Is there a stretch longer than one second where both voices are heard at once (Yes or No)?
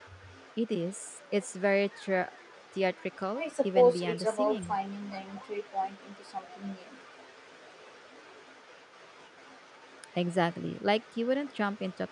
Yes